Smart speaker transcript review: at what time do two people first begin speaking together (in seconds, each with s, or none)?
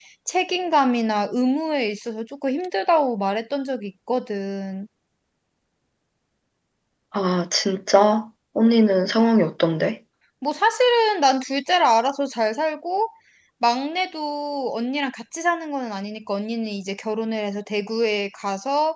none